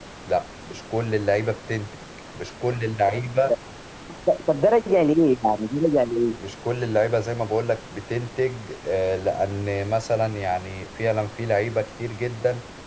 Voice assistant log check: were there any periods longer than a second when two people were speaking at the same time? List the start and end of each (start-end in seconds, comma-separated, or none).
none